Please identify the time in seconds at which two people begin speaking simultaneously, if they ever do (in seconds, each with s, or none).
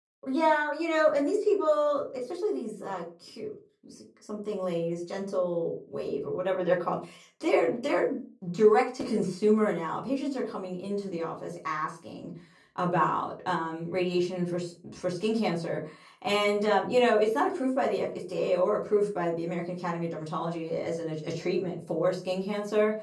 none